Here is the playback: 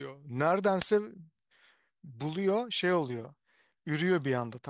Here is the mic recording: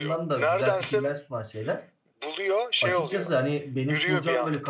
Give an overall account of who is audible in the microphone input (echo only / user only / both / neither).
both